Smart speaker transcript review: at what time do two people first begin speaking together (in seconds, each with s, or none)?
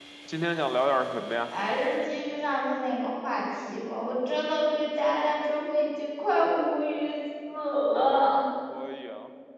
none